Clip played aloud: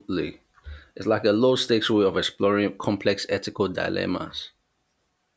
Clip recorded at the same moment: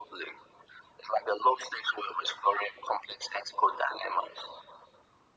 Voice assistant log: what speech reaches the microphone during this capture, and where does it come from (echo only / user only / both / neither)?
echo only